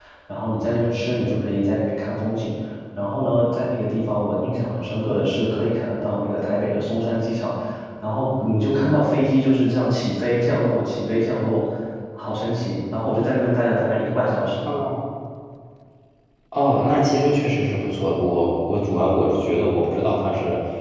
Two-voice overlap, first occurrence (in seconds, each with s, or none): none